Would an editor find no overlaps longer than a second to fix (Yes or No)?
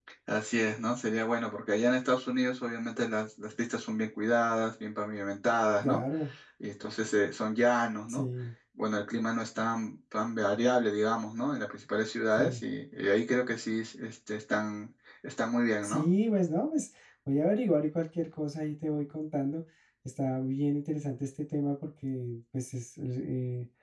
Yes